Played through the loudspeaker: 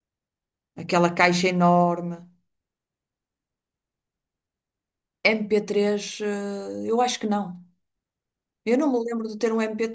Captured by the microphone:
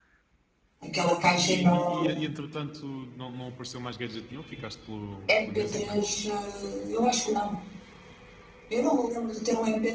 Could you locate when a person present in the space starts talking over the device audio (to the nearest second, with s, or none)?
1 s